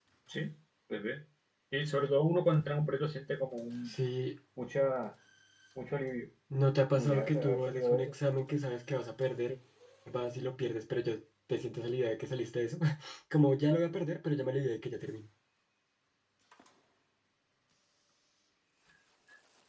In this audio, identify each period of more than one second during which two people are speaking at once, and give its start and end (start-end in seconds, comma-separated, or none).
6.9-8.1